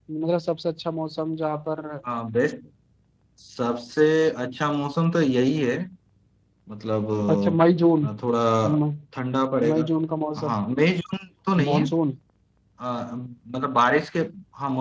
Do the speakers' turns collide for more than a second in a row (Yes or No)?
No